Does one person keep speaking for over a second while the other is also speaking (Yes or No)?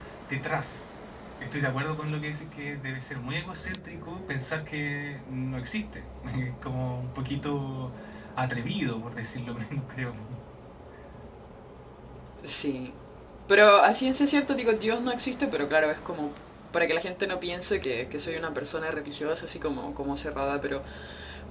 No